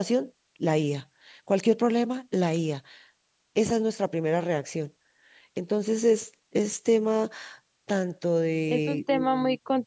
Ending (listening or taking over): taking over